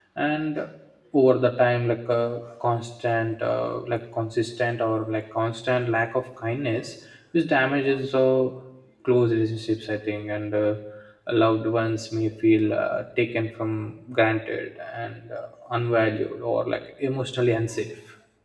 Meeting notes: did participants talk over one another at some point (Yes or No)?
No